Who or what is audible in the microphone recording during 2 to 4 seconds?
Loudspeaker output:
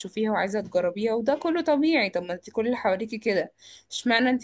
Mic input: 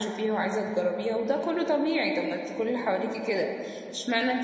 echo only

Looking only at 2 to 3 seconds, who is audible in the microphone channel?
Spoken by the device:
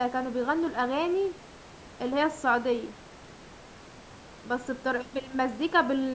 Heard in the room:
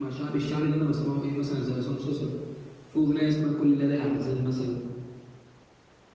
user only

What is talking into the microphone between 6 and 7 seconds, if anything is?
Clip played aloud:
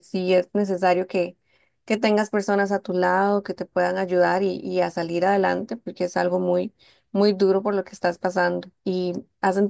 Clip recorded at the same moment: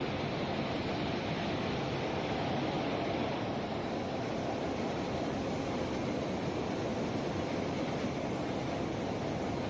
neither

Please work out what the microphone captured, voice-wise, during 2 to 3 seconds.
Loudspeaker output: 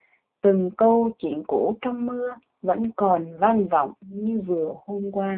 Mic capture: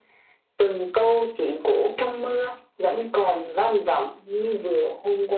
echo only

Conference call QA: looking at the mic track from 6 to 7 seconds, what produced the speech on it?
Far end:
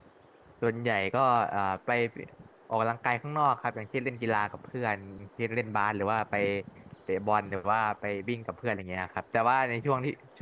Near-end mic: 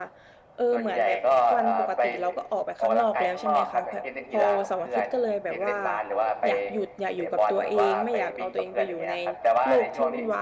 both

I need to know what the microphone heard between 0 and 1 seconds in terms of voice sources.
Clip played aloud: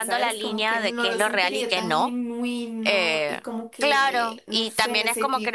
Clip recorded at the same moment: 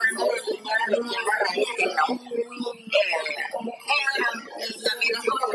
echo only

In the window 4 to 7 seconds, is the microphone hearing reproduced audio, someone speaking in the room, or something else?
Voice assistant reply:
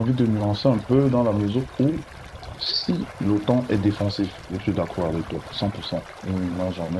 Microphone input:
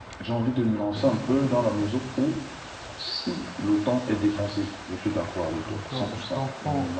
both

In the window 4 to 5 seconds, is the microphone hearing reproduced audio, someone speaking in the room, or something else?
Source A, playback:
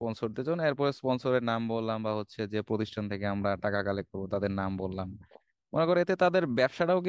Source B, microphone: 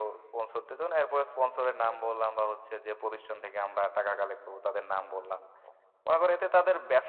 echo only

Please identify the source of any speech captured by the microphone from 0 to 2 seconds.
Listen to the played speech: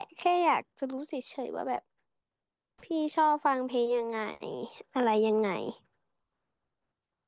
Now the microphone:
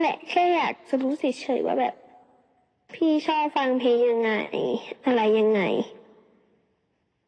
echo only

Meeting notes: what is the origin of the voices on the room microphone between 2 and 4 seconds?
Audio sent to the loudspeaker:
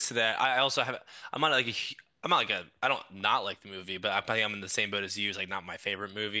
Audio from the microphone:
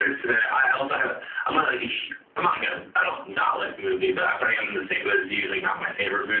echo only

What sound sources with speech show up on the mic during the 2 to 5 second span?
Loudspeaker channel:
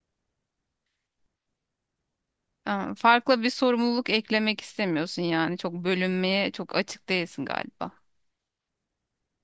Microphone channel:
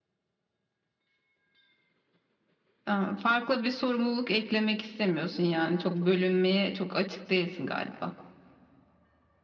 echo only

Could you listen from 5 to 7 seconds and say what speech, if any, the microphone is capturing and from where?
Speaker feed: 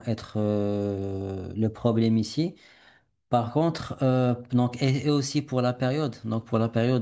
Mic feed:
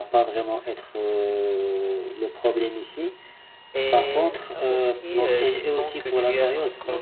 both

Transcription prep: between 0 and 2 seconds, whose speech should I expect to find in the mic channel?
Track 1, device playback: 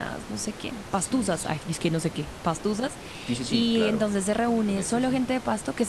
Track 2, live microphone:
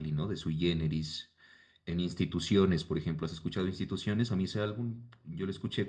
user only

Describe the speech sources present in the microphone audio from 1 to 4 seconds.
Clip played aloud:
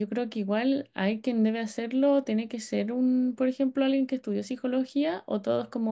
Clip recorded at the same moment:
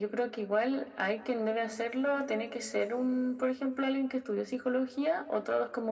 echo only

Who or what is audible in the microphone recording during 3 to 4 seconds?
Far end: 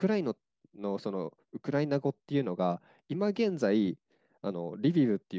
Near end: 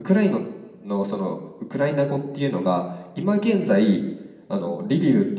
echo only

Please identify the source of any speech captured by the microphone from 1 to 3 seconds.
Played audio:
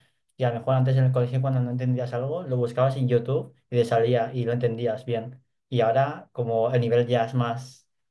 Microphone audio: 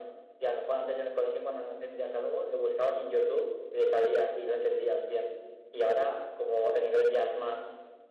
echo only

